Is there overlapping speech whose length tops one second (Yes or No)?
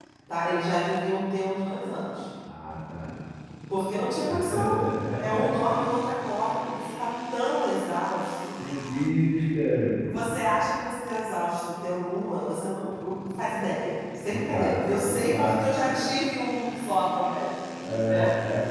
Yes